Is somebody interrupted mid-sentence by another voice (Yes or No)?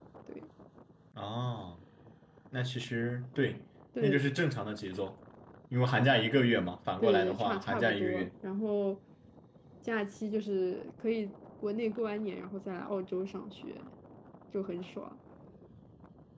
Yes